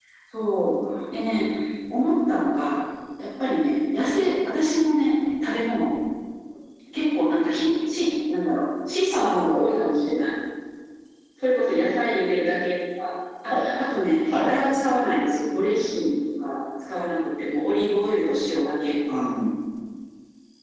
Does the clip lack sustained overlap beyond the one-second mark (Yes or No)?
Yes